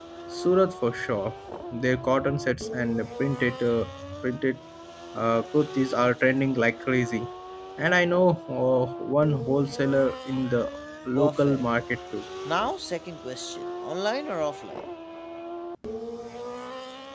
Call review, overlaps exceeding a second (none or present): none